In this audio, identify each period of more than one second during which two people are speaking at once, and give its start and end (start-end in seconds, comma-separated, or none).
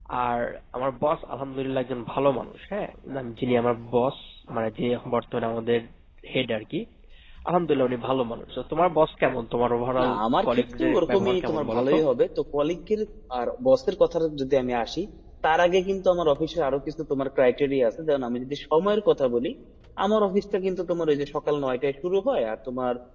10.0-12.0